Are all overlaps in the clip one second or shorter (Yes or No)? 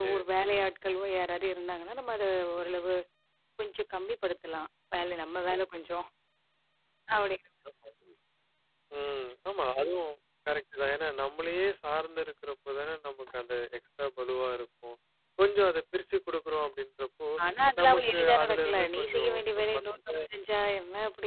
No